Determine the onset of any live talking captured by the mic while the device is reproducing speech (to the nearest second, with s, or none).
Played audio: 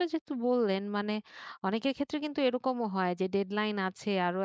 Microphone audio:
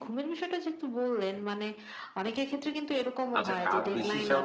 3 s